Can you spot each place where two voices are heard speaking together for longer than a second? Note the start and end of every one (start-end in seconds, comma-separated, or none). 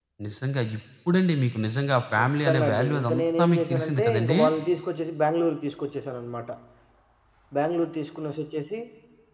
2.1-4.4